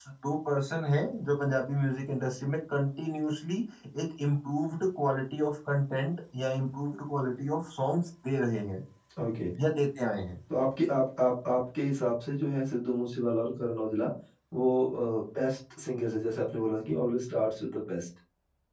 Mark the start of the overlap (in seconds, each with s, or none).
none